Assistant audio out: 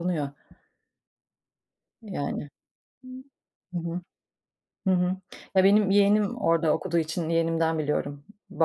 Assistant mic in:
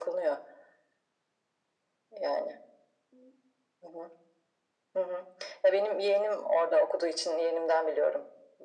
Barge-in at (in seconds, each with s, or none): none